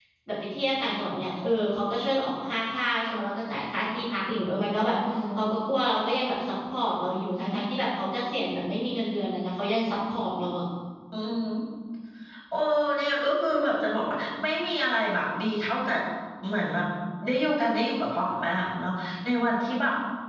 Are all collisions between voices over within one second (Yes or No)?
Yes